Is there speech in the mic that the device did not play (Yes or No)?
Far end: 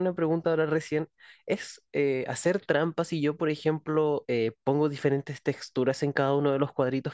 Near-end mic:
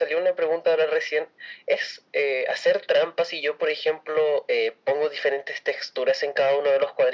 No